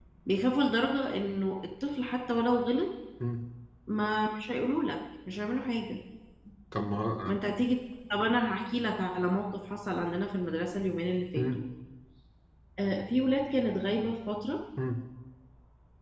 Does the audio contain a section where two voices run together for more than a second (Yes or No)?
No